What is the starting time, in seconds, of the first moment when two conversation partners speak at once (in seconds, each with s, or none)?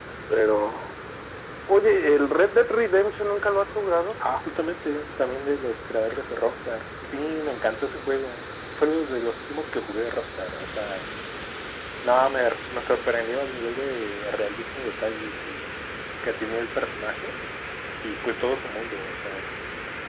none